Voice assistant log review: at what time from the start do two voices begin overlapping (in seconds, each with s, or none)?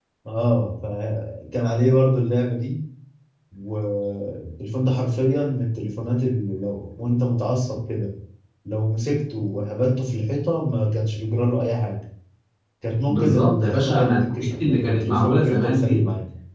13.1 s